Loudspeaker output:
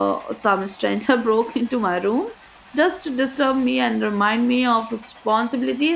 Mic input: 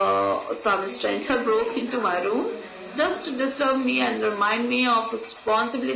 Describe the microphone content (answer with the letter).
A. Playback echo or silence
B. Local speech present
B